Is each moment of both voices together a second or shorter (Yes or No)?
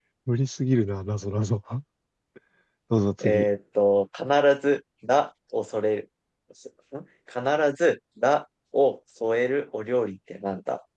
Yes